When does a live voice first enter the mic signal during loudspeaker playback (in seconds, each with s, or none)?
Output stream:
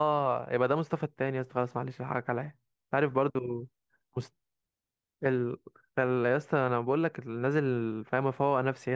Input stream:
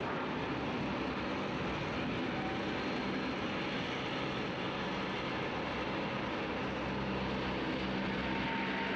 none